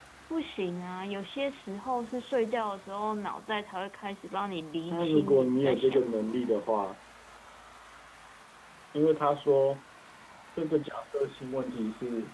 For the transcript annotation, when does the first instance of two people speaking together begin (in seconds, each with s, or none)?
4.9 s